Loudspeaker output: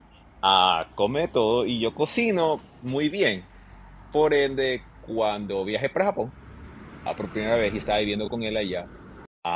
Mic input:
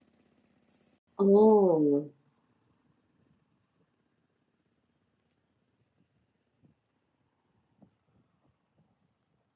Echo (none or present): none